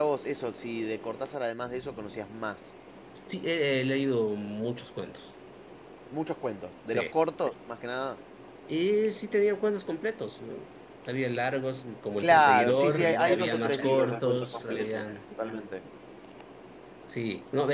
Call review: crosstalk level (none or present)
present